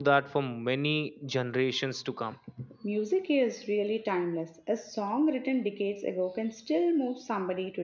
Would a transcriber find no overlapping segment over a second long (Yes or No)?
Yes